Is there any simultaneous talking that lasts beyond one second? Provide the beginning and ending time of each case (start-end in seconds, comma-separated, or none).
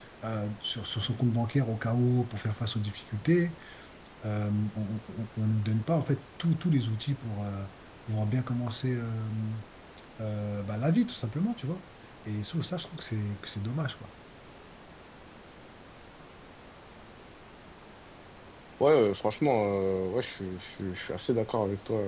none